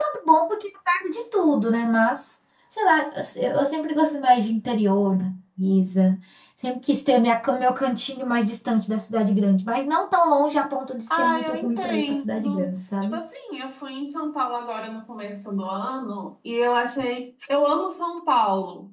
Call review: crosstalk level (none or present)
present